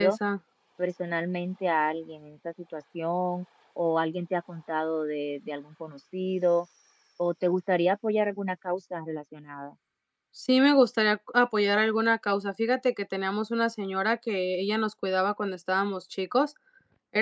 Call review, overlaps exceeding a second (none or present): none